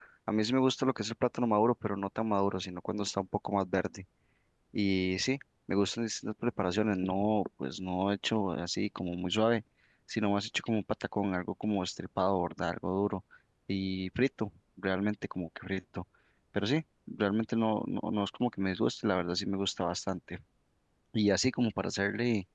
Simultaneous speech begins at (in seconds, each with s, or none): none